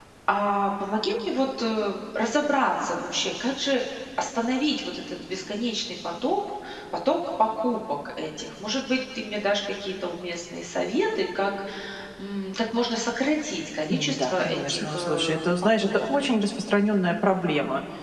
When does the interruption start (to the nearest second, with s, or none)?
14 s